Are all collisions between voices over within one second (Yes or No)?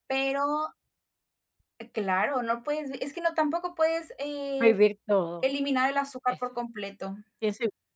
Yes